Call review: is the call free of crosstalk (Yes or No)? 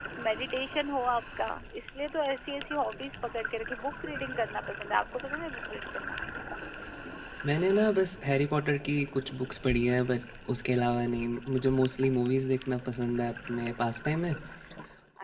Yes